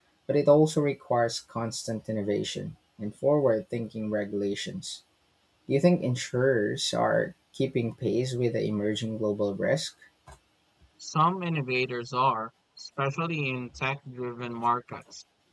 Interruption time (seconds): none

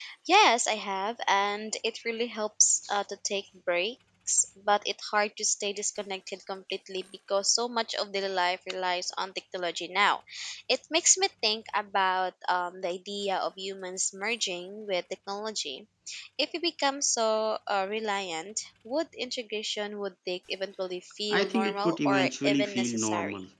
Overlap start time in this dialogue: 21.3 s

